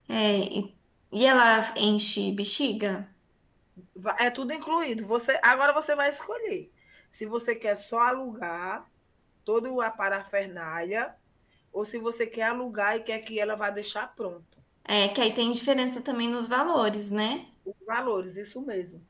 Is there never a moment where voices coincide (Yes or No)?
Yes